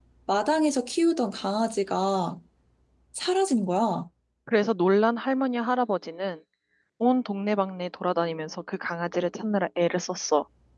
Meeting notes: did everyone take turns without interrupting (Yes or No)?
Yes